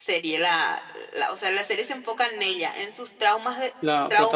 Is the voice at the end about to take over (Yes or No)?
No